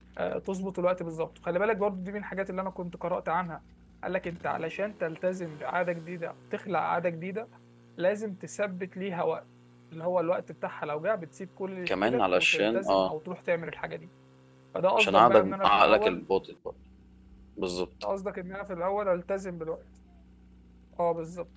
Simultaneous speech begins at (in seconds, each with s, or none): 11.9 s